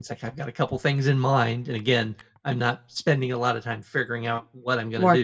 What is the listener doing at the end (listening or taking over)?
taking over